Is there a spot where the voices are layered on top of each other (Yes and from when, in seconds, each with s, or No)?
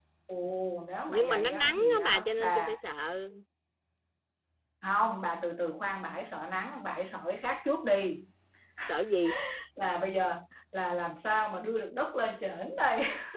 Yes, from 1.1 s